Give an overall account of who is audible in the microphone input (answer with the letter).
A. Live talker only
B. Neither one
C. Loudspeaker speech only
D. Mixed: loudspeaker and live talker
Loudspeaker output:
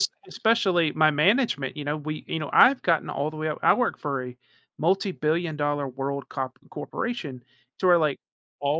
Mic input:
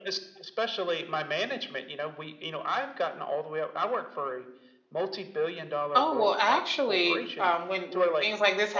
D